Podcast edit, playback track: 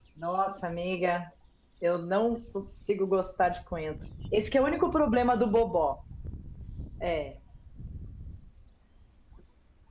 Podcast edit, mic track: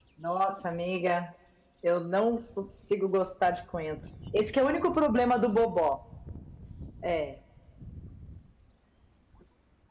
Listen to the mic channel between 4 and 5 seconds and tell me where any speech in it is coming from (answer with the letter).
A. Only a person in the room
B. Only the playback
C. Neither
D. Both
B